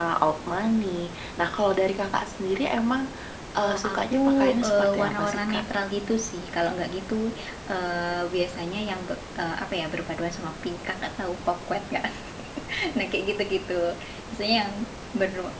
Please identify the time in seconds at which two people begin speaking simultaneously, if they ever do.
3.5 s

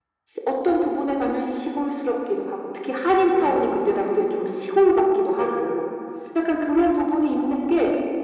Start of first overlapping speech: 3.1 s

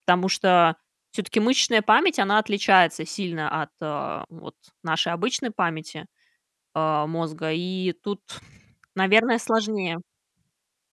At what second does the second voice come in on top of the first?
none

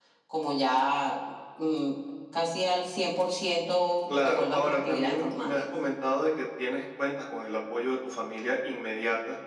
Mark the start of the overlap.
4.1 s

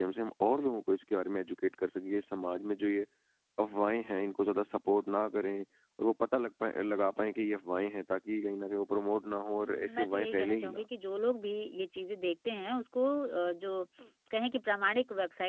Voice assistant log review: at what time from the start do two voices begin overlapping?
9.5 s

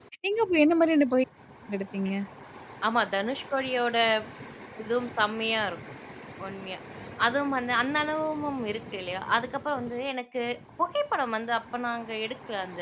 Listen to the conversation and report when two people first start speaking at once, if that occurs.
none

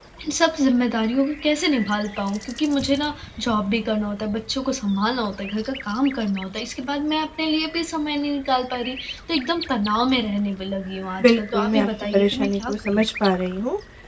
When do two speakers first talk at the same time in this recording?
11.2 s

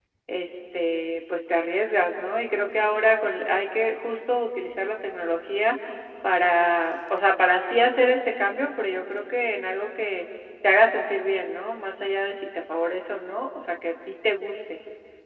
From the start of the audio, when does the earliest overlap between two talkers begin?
none

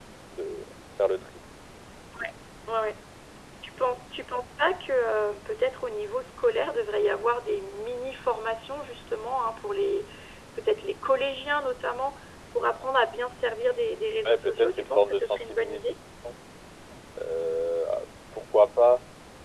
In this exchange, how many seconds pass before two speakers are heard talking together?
14.2 s

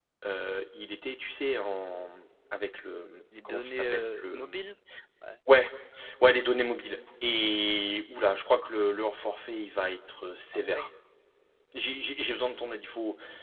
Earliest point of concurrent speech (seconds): 3.3 s

